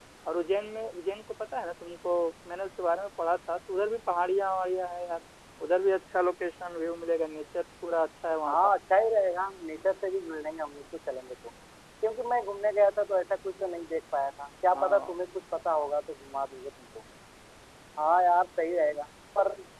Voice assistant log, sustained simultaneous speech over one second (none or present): none